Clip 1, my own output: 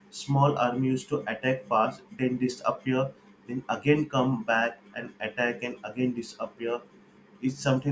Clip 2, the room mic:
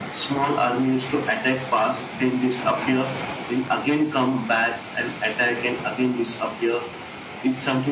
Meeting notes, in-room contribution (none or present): none